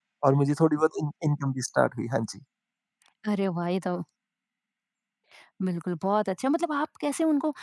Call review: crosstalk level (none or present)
none